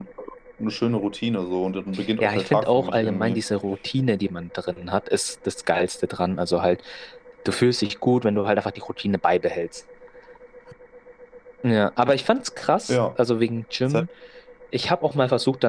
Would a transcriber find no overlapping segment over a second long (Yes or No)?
No